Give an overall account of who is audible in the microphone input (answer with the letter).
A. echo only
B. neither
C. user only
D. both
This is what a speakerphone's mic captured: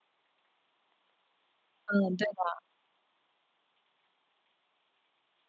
C